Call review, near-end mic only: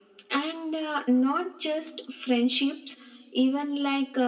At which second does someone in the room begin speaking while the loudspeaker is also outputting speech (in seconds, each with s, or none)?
none